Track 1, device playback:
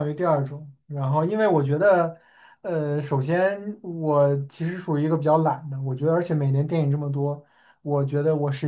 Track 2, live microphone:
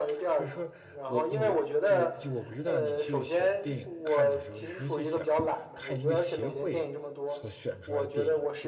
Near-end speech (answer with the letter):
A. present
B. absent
A